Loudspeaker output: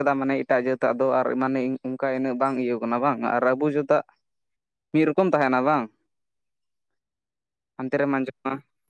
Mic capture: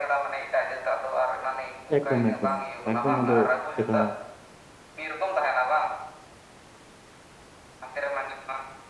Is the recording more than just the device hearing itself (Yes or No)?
Yes